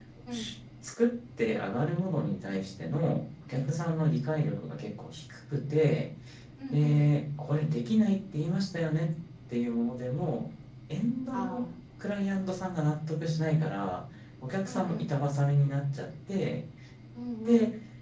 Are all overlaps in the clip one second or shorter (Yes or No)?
Yes